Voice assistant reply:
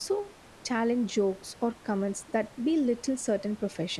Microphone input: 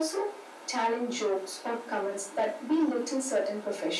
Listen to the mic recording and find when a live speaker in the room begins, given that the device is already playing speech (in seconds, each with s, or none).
none